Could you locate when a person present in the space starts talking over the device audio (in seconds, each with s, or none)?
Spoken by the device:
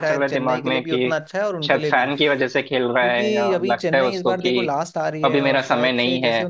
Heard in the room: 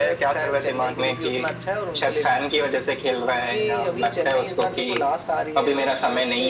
none